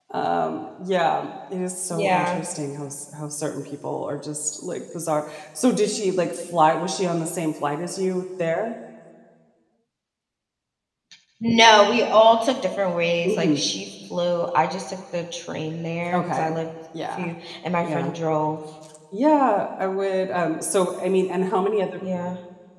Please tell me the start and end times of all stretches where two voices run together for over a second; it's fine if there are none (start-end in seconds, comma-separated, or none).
none